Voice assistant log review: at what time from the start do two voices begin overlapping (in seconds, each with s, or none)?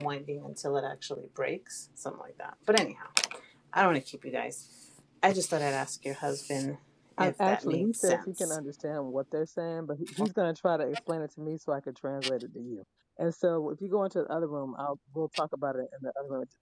7.2 s